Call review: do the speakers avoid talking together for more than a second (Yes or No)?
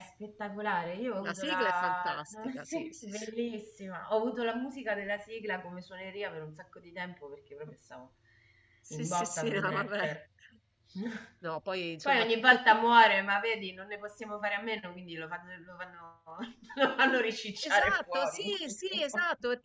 No